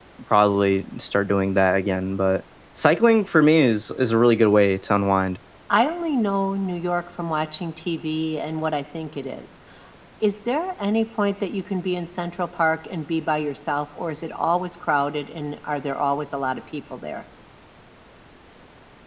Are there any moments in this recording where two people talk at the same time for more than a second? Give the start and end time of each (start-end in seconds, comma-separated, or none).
none